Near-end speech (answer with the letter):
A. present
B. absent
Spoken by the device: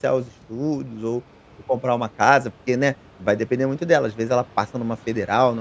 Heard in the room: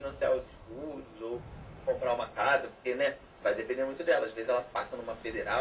B